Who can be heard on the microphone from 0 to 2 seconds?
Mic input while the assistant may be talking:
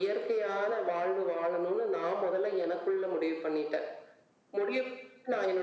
echo only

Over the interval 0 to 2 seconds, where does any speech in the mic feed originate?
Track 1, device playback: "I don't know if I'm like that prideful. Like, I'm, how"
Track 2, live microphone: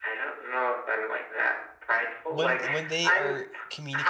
echo only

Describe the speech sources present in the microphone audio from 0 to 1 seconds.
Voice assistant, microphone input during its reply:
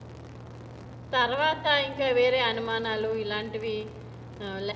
neither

